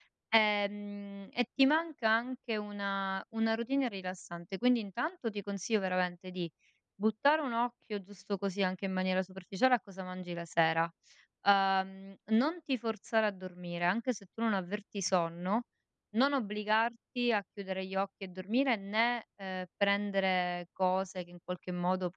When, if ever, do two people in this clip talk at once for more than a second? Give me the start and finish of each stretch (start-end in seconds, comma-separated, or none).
none